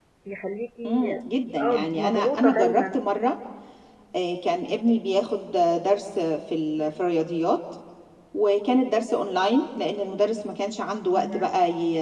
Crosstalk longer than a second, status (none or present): present